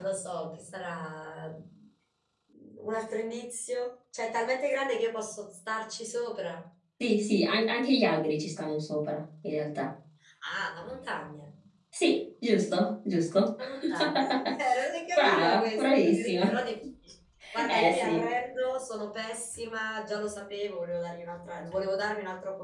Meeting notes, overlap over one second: present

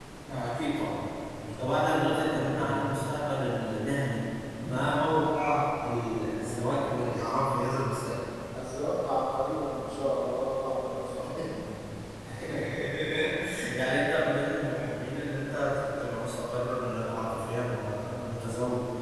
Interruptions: present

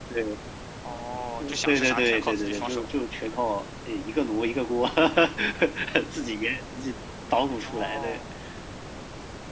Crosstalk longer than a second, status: present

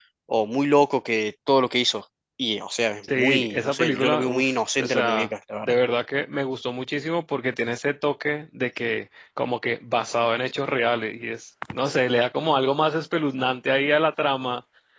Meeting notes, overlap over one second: present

